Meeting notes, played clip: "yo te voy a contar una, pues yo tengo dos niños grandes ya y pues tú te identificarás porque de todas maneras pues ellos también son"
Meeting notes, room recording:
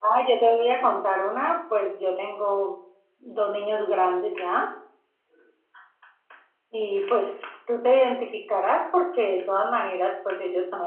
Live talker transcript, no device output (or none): none